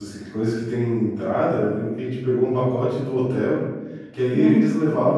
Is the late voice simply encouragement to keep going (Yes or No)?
Yes